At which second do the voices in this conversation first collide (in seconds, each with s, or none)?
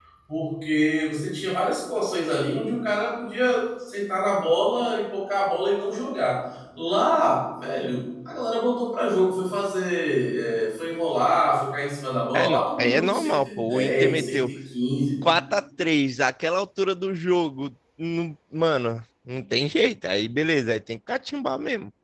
12.3 s